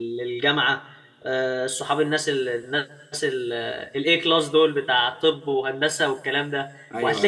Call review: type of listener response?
listening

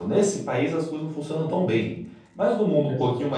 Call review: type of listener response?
listening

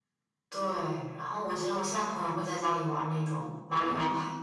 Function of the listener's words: taking over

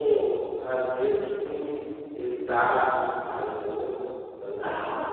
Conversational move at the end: taking over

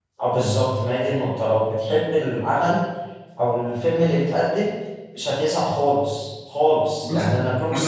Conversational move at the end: listening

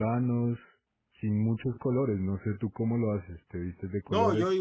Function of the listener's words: taking over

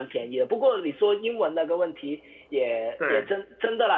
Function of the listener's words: listening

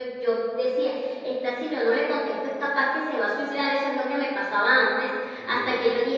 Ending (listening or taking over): listening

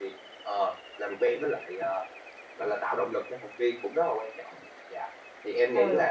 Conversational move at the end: taking over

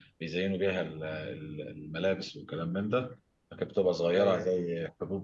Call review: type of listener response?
listening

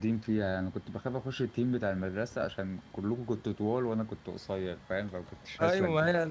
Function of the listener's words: taking over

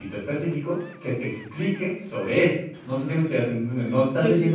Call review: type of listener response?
listening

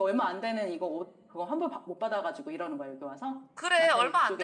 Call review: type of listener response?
taking over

